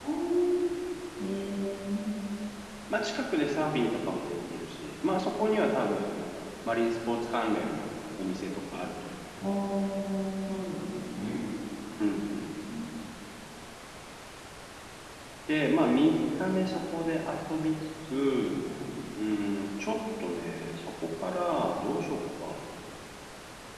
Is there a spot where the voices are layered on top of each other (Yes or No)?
No